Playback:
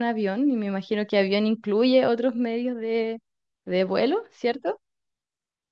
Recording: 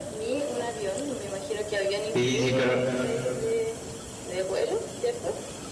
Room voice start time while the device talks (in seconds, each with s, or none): 2.1 s